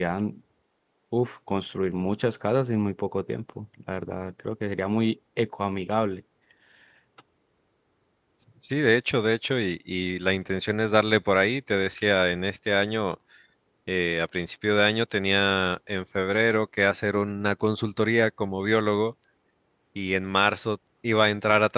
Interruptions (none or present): none